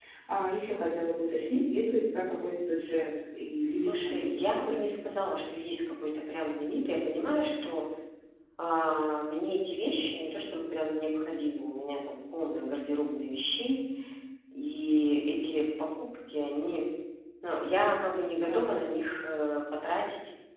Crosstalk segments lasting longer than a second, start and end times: 3.7-4.9

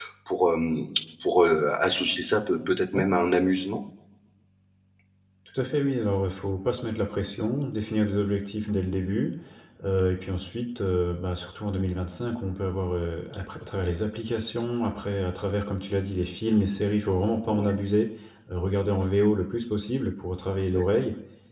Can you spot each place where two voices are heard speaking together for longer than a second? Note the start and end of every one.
none

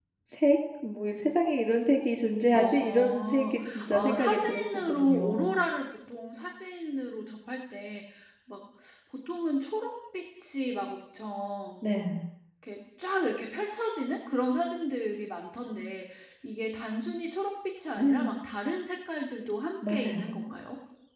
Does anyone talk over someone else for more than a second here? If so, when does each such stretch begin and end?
2.5-5.5

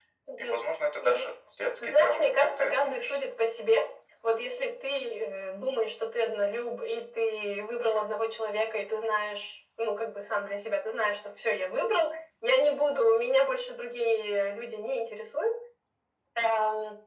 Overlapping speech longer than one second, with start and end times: 1.8-3.1

